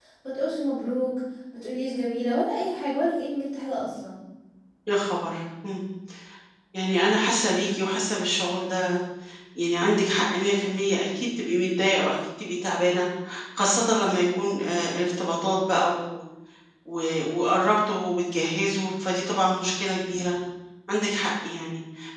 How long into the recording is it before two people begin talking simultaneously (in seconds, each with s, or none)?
none